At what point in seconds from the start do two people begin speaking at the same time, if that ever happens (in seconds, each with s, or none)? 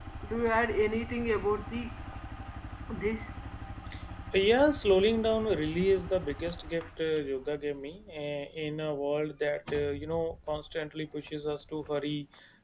none